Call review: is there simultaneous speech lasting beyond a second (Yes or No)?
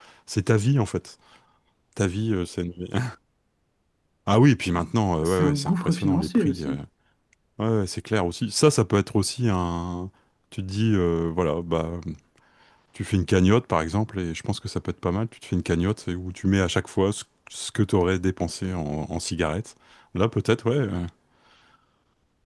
Yes